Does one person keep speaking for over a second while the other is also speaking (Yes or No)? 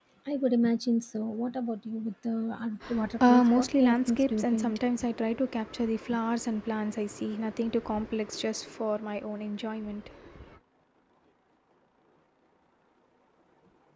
Yes